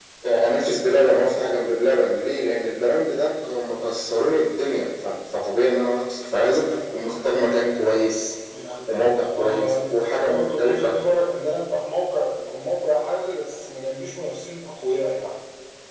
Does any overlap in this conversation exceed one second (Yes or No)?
Yes